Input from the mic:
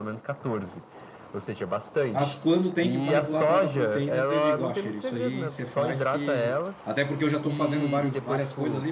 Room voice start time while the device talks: 2.1 s

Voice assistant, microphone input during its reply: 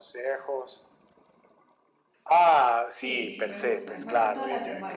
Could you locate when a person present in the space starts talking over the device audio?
2.9 s

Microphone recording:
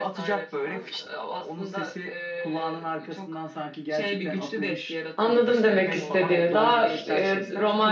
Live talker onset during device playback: 5.2 s

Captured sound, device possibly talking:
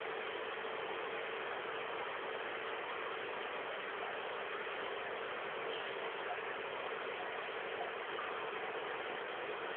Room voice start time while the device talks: none

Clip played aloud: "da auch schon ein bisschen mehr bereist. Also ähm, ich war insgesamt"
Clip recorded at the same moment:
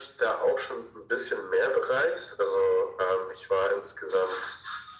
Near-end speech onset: none

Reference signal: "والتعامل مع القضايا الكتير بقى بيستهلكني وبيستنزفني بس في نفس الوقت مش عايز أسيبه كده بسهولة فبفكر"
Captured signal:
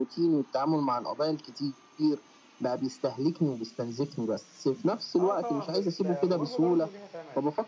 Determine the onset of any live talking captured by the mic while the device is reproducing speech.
5.2 s

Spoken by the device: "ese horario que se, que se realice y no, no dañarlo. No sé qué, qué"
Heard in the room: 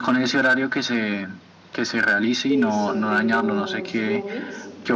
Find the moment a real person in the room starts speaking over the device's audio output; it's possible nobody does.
2.4 s

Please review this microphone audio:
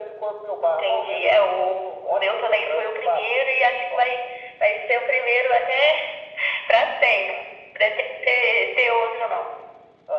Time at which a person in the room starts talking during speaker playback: none

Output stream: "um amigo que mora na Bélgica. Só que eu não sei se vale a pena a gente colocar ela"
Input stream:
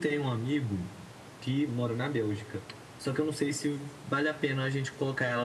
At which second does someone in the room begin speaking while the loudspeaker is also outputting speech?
none

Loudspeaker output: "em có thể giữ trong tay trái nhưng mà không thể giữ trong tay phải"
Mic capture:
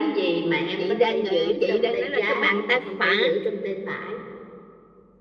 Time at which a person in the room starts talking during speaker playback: 0.8 s

